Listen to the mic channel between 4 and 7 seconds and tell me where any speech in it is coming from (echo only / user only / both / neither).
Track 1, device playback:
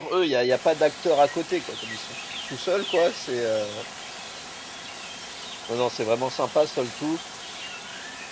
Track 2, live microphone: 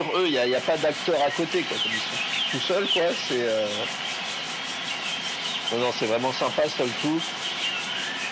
echo only